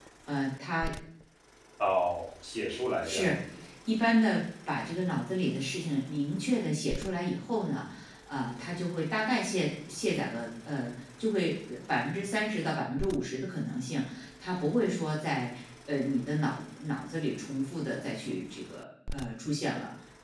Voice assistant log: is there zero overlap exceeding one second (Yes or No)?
Yes